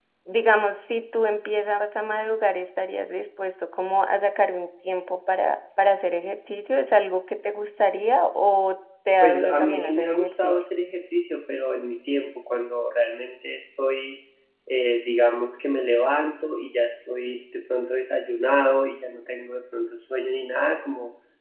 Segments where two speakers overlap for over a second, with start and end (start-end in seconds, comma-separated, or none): 9.2-10.6